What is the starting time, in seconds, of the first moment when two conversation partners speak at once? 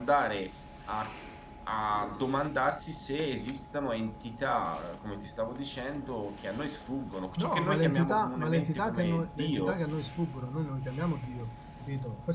7.4 s

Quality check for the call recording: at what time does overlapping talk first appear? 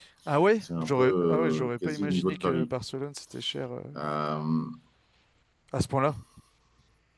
0.6 s

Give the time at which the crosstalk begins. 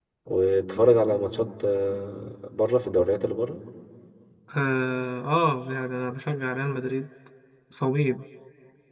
none

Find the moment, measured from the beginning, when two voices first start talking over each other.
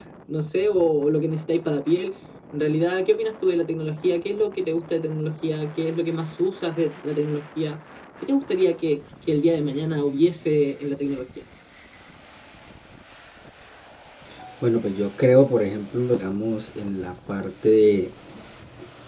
none

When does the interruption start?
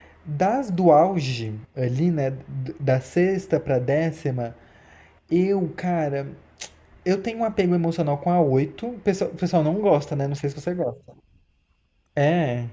none

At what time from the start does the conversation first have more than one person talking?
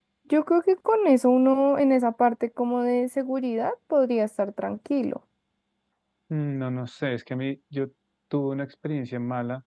none

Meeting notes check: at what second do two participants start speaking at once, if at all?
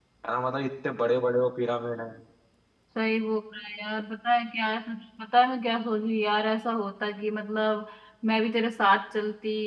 none

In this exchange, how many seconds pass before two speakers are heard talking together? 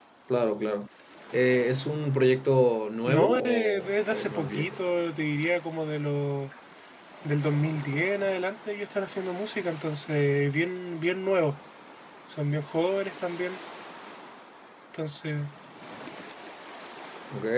3.1 s

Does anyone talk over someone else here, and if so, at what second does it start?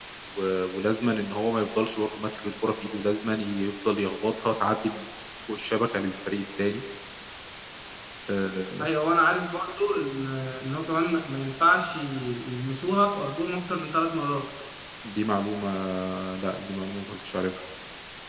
none

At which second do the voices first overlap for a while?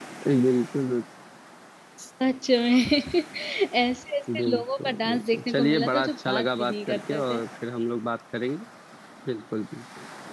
4.4 s

